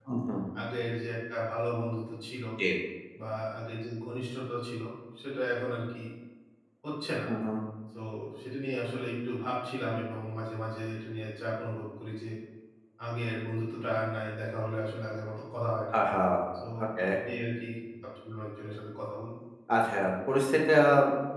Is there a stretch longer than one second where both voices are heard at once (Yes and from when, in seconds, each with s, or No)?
No